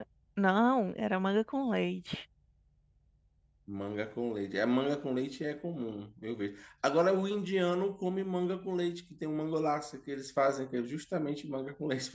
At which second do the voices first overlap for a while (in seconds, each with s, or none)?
none